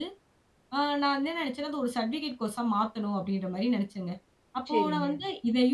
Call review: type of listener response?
listening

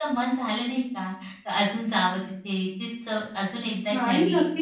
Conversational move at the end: taking over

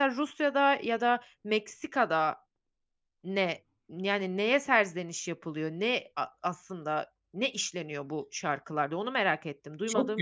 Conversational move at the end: taking over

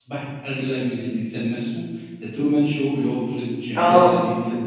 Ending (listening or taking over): taking over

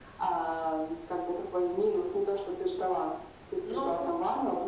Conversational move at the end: listening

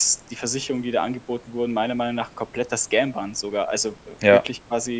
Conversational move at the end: listening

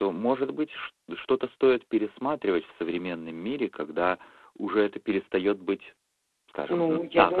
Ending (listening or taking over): taking over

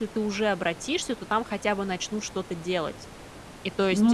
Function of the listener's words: listening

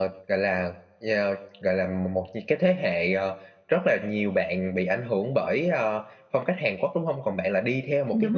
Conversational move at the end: listening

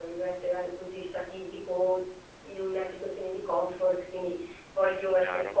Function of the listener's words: listening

